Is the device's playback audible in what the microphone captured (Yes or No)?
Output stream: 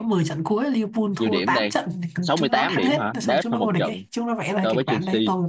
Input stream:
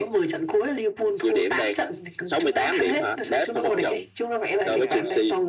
Yes